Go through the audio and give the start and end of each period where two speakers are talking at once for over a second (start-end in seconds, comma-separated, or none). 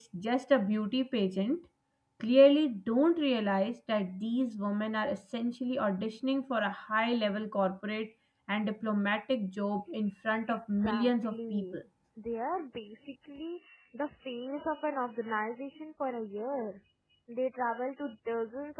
10.5-11.8